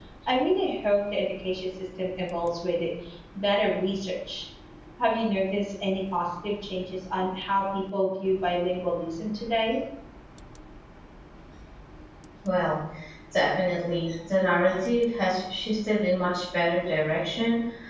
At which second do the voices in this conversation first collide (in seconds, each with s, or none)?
none